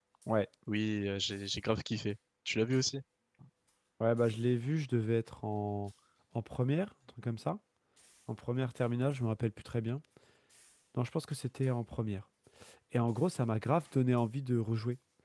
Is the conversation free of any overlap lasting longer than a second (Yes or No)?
Yes